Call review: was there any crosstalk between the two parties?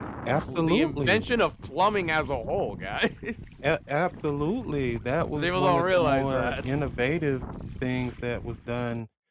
Yes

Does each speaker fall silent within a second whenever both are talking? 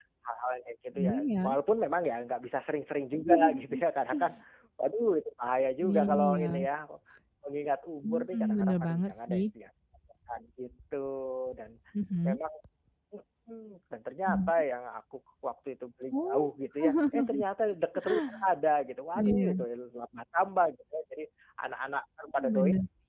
No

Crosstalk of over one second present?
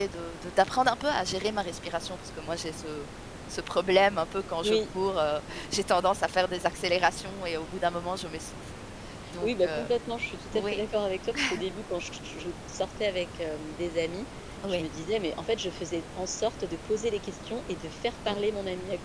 No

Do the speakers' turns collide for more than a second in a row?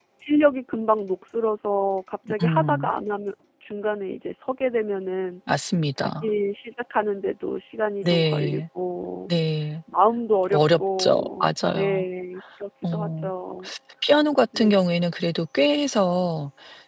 Yes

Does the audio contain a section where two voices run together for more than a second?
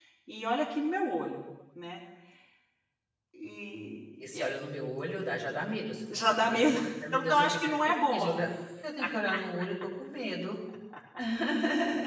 Yes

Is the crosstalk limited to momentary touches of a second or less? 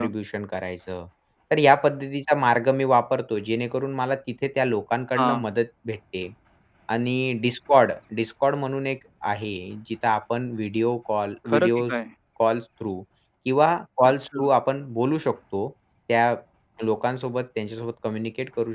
Yes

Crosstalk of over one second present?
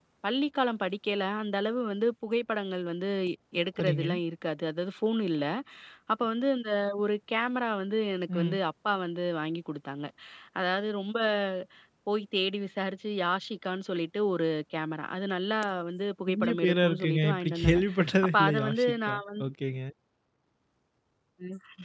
Yes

